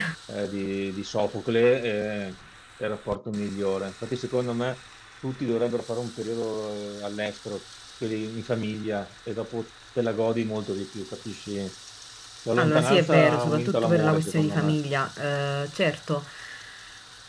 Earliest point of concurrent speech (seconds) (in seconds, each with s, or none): 12.6 s